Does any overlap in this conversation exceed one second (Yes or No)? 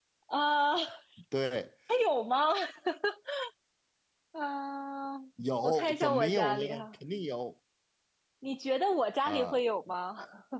Yes